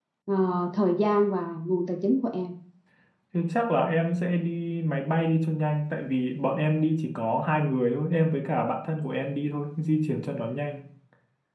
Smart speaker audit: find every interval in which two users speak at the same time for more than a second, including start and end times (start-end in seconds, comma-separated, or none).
none